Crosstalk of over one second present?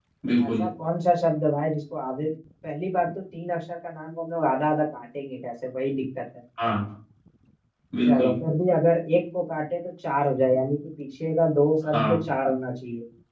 No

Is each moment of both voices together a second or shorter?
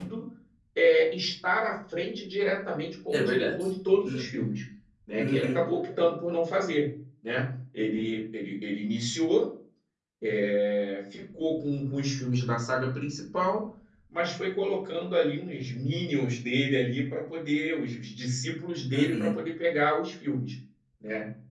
Yes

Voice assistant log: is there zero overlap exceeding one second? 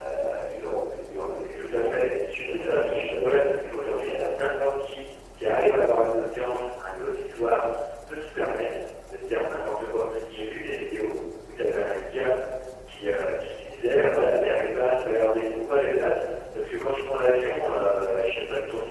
No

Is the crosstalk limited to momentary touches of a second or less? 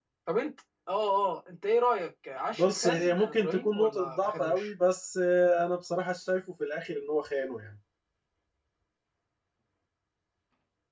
No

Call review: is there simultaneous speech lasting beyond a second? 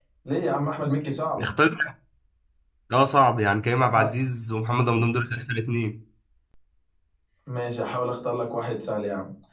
No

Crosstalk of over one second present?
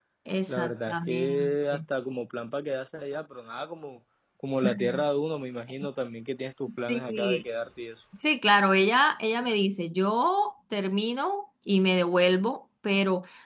Yes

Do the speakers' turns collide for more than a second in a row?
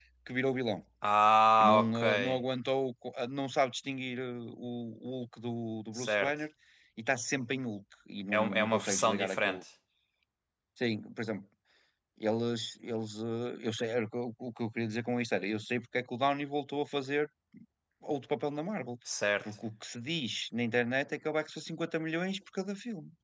Yes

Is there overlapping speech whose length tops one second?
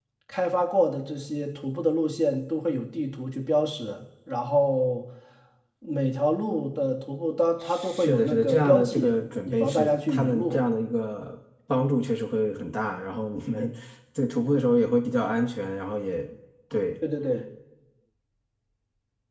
Yes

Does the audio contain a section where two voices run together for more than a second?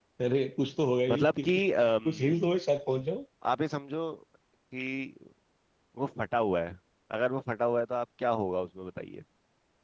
Yes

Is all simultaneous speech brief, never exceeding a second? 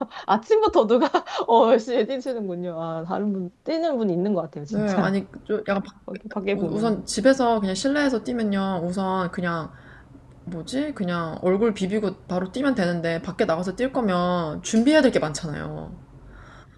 Yes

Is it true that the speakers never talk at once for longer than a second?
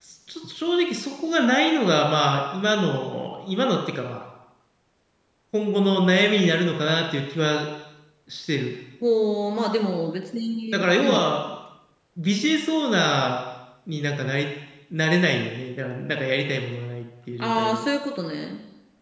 Yes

